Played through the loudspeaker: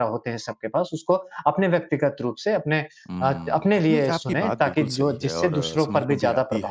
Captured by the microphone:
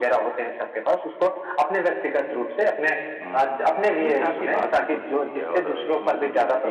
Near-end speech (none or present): none